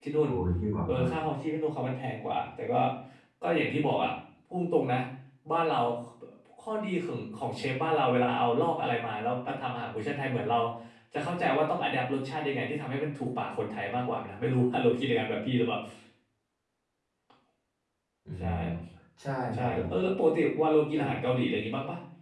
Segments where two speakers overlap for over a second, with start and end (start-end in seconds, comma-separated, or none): none